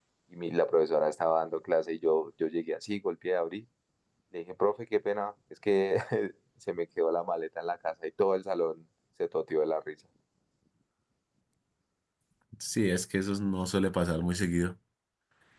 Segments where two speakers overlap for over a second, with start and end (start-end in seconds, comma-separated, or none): none